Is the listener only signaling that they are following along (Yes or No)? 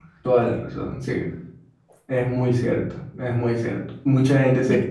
Yes